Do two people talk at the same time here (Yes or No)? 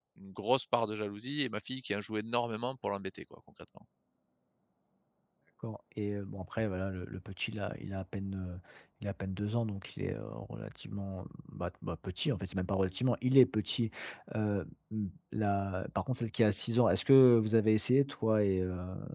No